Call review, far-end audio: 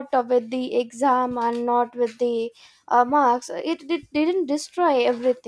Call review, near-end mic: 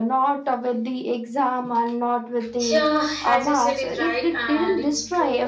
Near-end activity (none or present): present